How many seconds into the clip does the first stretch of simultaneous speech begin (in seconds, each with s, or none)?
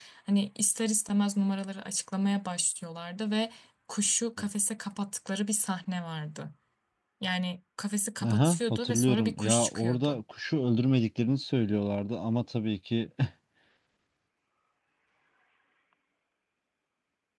8.2 s